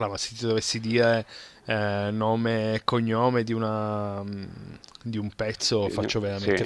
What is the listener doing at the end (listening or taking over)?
listening